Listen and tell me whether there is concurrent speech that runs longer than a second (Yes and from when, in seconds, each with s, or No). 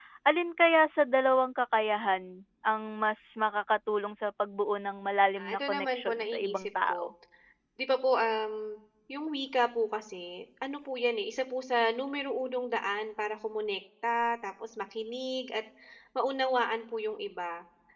Yes, from 5.4 s